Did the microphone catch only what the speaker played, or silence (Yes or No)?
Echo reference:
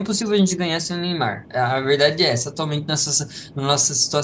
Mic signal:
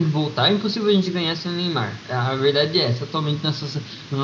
Yes